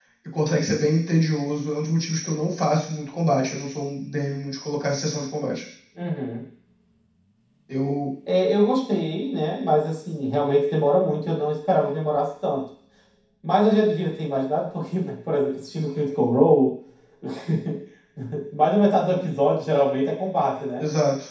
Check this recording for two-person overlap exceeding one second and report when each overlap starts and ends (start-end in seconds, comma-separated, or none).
none